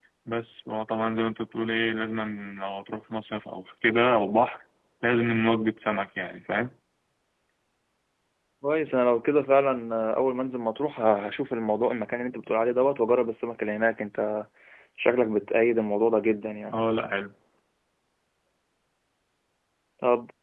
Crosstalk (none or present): none